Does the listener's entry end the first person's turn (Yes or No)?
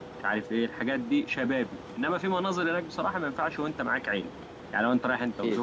No